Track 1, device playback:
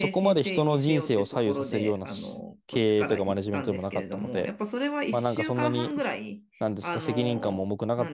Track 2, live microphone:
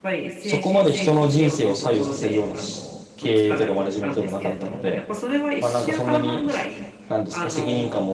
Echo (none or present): present